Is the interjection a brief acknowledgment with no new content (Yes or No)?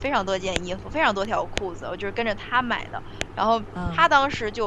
Yes